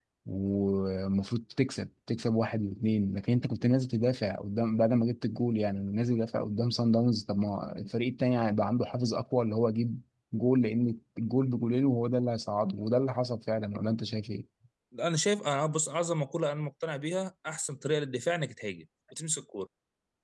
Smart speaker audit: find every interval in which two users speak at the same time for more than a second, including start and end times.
none

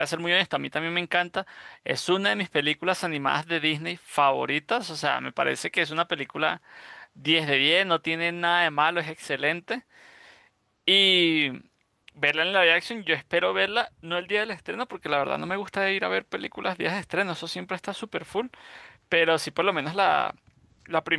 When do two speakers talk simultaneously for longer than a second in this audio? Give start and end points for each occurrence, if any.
none

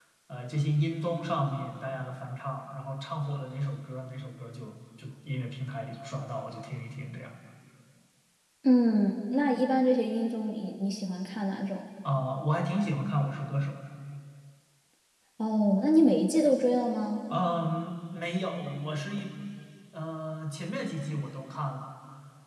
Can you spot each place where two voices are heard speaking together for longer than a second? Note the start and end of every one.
none

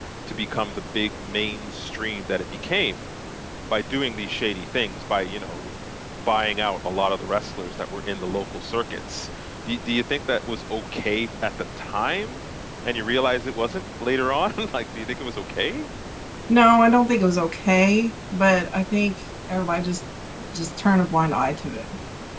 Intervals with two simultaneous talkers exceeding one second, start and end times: none

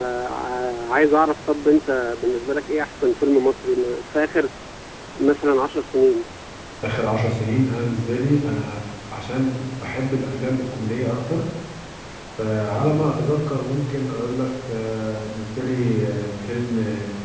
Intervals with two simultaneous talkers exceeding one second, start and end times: none

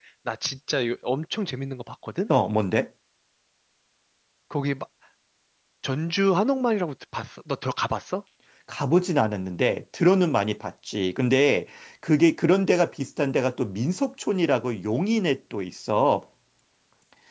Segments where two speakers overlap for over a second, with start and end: none

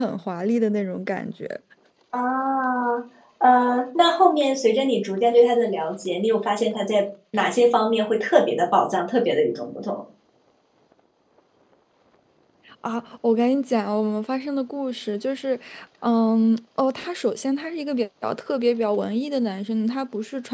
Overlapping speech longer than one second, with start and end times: none

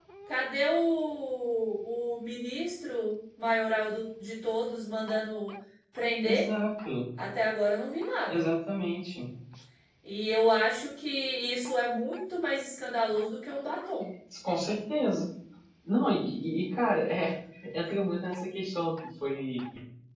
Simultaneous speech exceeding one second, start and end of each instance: none

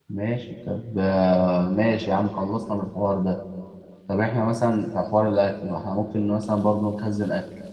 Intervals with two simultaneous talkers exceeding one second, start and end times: none

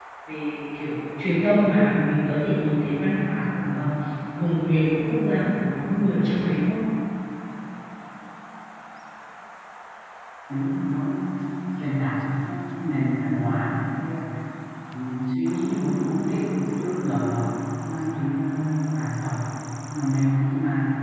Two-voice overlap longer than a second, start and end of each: none

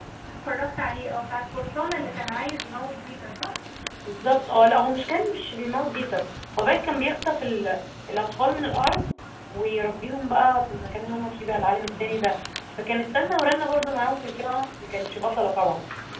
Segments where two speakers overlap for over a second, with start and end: none

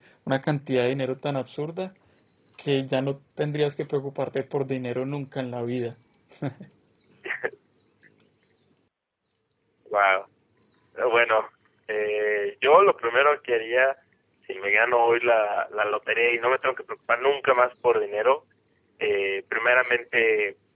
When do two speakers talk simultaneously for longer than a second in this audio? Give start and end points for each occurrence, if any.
none

